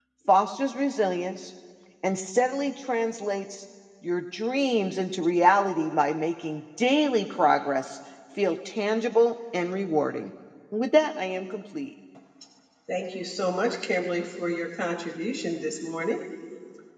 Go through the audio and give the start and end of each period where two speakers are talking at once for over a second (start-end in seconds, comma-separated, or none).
none